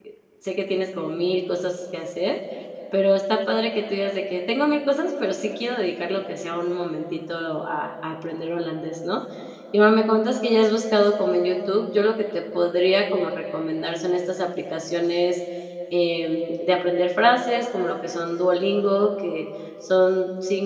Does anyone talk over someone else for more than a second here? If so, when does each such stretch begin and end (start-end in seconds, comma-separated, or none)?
none